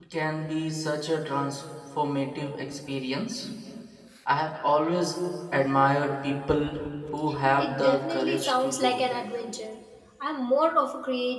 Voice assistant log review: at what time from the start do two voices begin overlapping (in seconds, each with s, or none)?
7.6 s